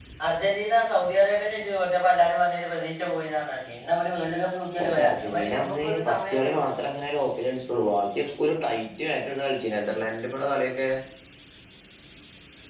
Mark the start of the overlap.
4.8 s

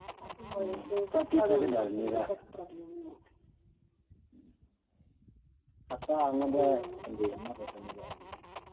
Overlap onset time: 0.6 s

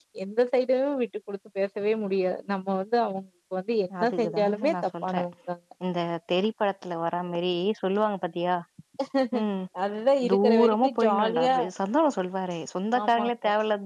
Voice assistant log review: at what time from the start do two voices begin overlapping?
4.0 s

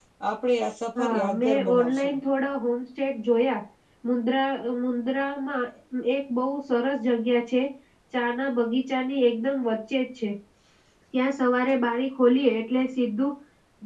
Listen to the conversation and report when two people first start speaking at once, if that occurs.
1.0 s

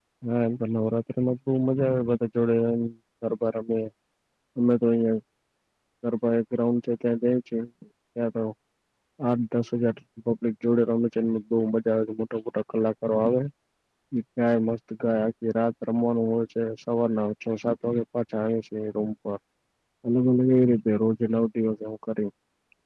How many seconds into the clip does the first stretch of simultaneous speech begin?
none

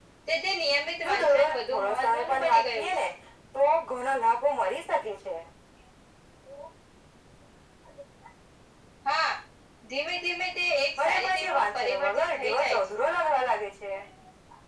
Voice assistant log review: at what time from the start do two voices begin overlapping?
1.0 s

